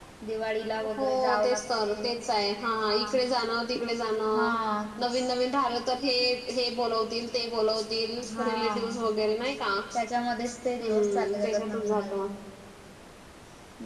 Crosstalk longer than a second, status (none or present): present